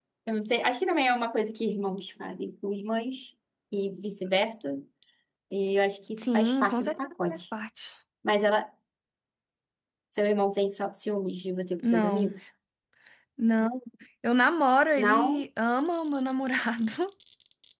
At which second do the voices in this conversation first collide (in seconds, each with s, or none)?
6.2 s